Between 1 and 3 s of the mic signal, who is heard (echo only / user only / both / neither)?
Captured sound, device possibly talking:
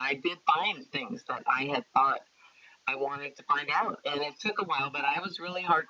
echo only